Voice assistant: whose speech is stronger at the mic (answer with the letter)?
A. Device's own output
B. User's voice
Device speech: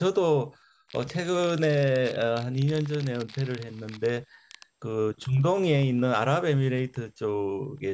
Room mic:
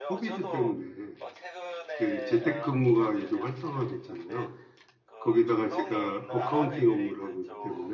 B